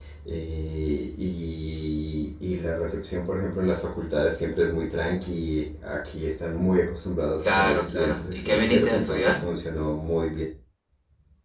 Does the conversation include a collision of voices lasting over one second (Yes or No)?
Yes